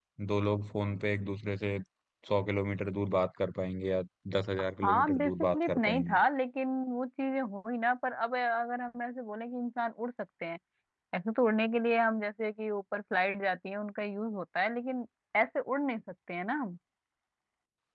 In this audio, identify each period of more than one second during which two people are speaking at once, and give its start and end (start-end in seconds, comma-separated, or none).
4.8-6.2